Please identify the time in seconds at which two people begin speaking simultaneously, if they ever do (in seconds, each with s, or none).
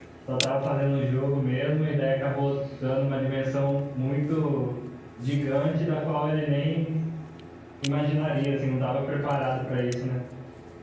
none